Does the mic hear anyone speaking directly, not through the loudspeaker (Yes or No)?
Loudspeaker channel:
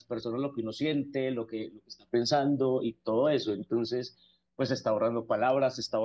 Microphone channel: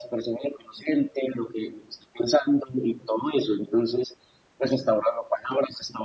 No